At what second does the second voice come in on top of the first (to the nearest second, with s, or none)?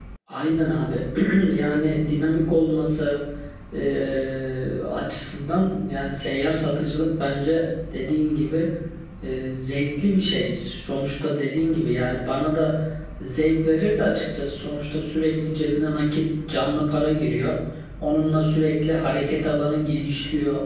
none